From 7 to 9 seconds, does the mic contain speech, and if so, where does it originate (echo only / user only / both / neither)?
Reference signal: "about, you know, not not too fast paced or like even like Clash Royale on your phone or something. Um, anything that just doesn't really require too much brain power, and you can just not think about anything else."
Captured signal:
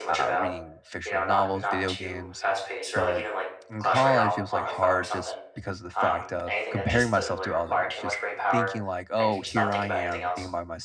both